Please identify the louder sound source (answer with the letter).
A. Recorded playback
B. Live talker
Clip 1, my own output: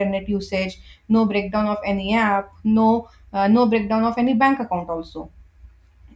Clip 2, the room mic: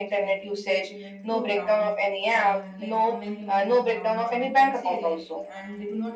A